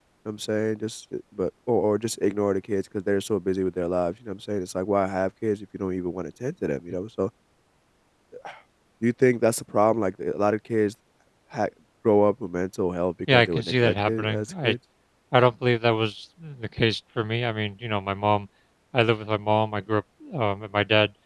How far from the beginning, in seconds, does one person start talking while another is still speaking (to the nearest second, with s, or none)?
13 s